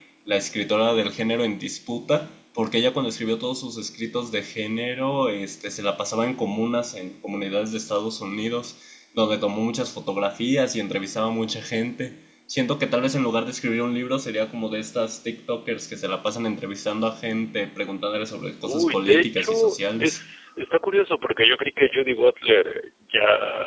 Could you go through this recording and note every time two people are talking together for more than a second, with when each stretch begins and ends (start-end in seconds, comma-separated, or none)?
18.6-20.2